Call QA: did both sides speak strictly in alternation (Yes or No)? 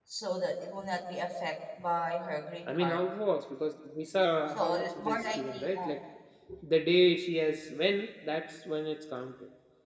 No